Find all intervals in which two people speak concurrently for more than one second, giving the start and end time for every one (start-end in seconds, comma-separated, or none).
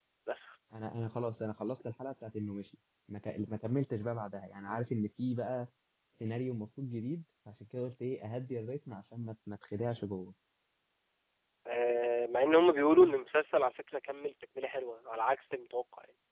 none